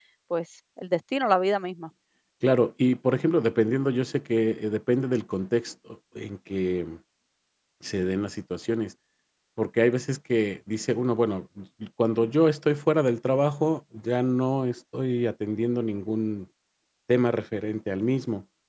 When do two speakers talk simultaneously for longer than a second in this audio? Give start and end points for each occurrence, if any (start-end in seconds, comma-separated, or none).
none